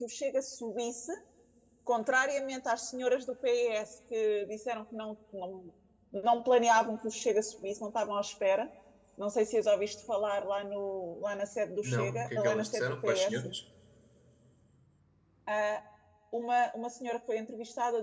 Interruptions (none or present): present